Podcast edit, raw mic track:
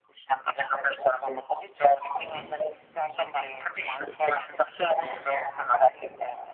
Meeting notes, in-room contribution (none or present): none